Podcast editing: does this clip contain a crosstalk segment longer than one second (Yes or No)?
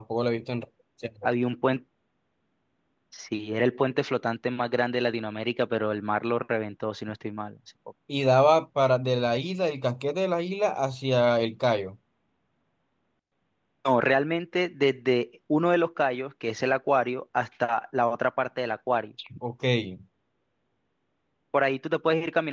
No